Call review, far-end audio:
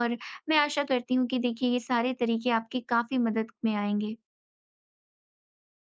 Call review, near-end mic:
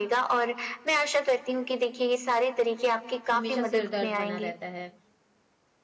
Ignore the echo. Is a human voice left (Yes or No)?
Yes